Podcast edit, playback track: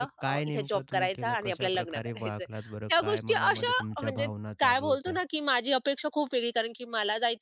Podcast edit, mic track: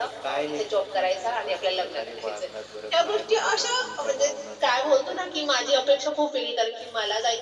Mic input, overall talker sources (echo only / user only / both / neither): echo only